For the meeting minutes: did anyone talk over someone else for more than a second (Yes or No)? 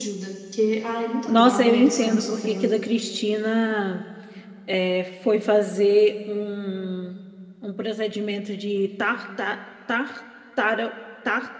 Yes